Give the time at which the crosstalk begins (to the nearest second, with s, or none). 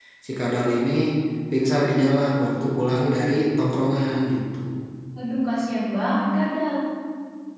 none